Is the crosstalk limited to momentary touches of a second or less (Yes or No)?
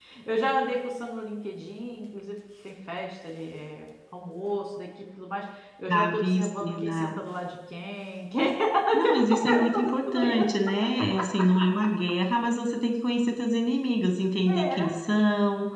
No